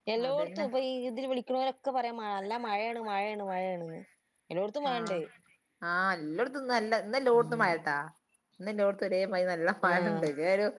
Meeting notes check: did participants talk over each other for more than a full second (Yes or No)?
No